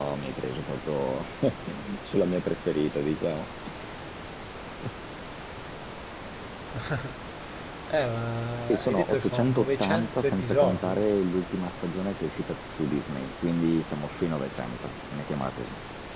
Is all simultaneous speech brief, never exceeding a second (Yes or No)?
No